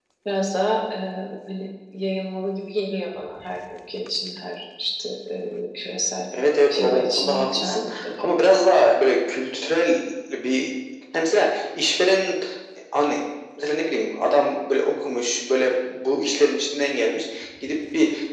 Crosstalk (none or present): present